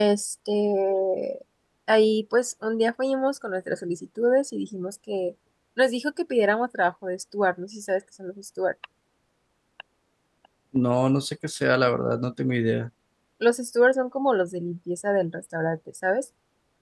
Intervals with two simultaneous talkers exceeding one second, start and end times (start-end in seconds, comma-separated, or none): none